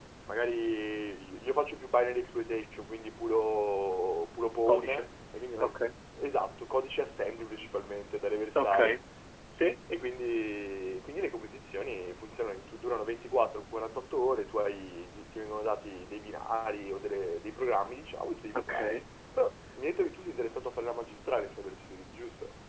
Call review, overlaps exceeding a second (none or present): none